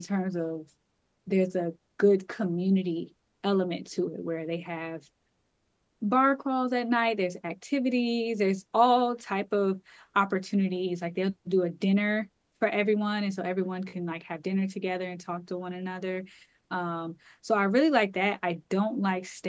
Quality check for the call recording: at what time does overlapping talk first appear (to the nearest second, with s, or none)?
none